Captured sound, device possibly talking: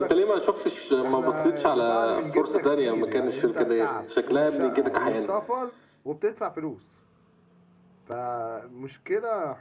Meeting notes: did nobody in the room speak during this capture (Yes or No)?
No